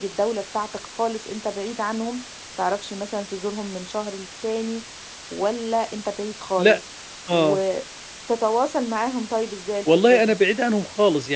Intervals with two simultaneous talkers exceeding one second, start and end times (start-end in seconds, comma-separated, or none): none